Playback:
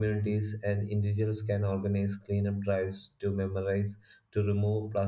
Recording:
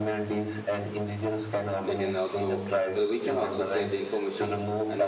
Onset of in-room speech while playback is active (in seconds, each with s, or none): 1.9 s